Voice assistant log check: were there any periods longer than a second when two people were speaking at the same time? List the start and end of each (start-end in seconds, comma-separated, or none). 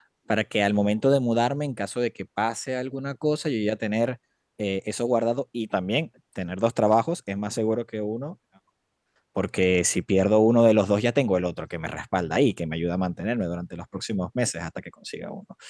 none